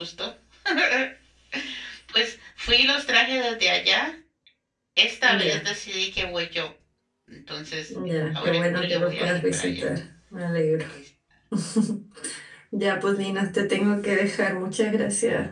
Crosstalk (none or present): present